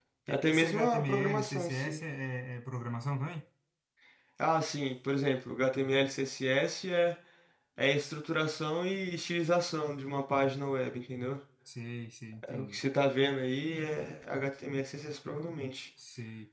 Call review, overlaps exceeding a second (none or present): present